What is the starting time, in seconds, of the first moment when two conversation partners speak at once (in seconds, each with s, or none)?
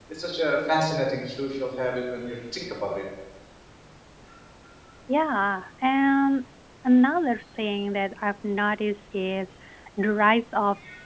none